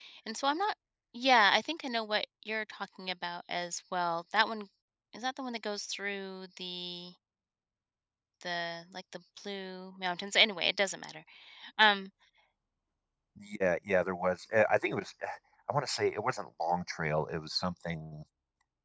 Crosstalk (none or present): none